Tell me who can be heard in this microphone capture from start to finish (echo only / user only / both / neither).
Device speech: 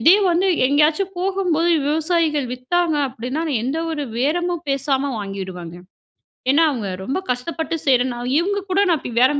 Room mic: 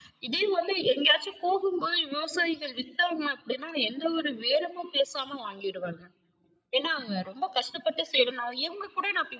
echo only